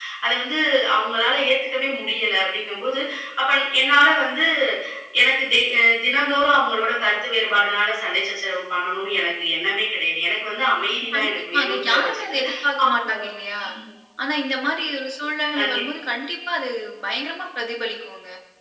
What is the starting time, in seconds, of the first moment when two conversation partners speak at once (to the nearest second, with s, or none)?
11 s